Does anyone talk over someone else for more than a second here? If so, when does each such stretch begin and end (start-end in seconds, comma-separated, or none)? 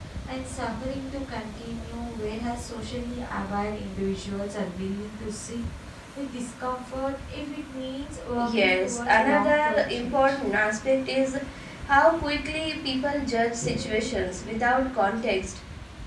8.4-10.4